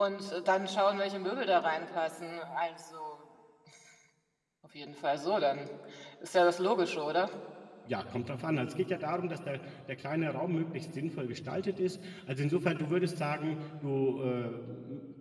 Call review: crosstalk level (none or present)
none